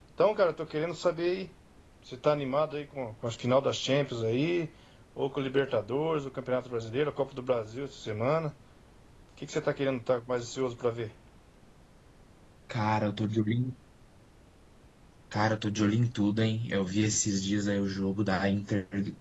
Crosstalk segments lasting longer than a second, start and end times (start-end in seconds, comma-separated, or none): none